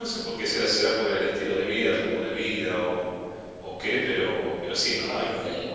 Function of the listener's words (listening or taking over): taking over